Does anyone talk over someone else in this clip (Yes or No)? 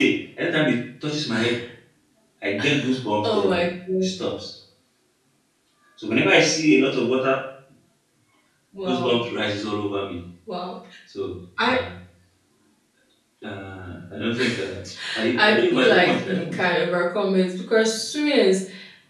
Yes